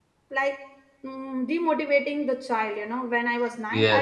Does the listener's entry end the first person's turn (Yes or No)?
No